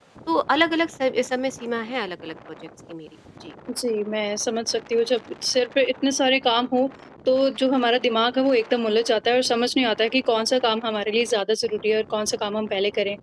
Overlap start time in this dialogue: none

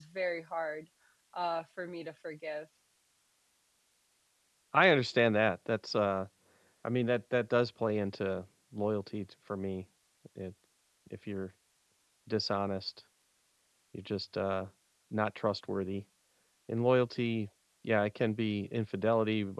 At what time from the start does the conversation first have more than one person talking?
none

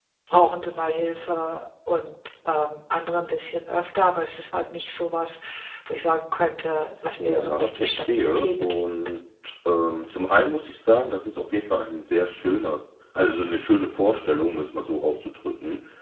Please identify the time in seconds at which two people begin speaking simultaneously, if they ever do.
7 s

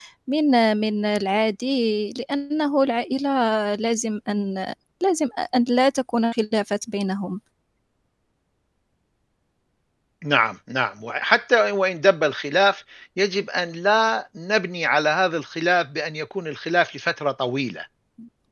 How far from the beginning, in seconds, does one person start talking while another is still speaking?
none

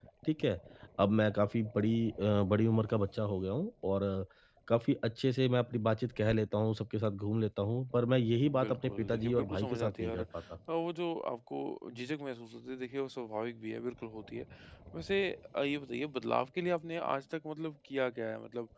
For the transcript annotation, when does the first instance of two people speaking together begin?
8 s

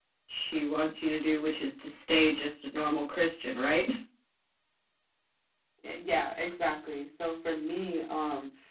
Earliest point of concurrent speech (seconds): none

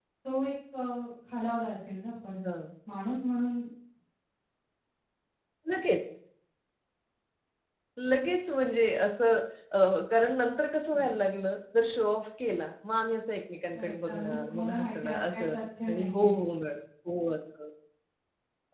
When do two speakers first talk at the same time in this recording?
14 s

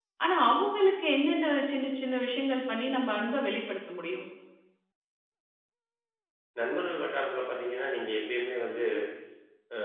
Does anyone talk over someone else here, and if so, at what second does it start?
none

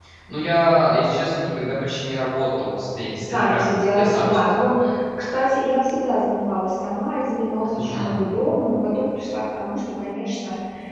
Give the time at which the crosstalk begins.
3 s

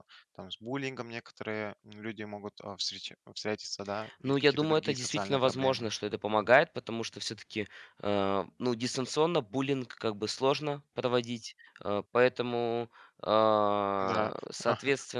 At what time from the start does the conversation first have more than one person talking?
4 s

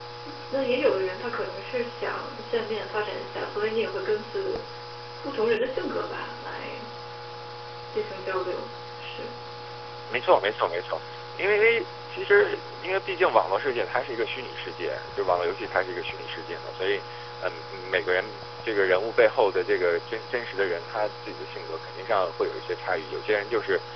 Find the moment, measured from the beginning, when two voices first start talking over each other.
none

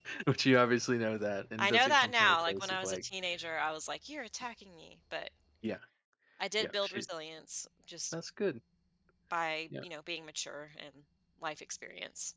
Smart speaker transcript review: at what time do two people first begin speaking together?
2 s

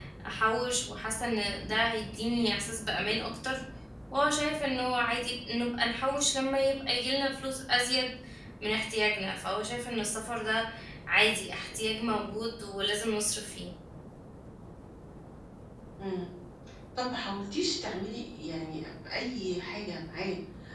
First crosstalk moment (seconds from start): none

